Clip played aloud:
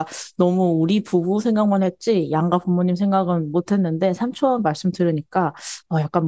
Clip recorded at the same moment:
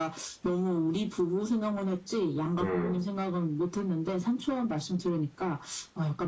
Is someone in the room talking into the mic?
Yes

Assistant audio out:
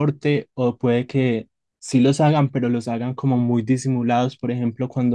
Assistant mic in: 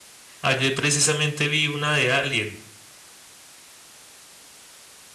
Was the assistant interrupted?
Yes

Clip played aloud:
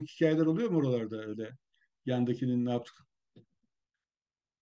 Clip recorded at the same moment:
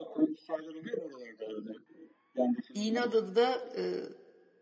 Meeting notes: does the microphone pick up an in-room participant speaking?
Yes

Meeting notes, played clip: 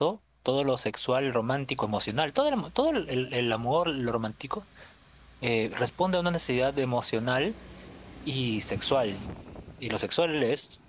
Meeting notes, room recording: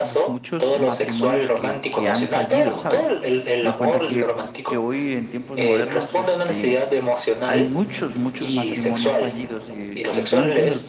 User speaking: Yes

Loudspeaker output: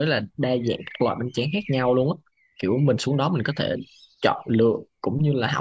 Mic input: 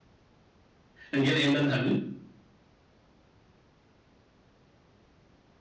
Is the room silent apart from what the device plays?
No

